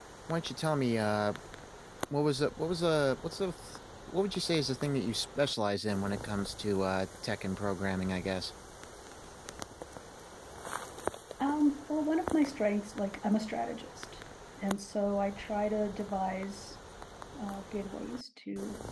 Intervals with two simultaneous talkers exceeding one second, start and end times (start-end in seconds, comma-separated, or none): none